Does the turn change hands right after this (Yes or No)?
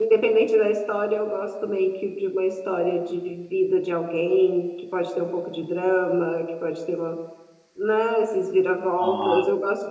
No